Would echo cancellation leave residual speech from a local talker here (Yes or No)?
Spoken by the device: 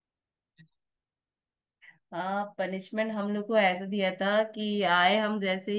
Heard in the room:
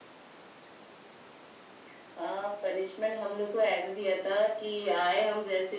No